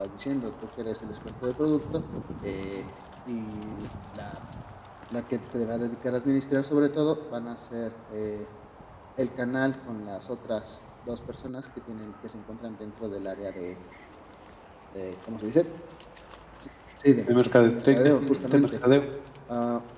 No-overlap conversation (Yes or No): No